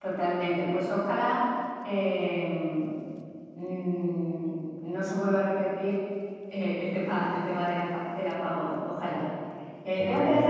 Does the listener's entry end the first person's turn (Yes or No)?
No